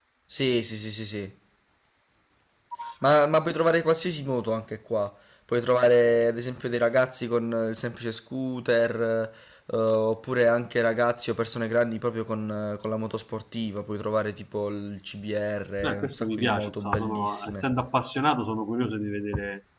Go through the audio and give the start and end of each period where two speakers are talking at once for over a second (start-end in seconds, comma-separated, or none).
15.8-17.6